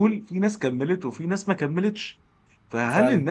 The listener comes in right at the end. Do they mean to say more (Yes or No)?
No